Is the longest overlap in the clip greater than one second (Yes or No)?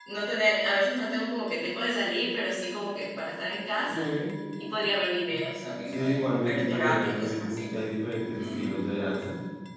Yes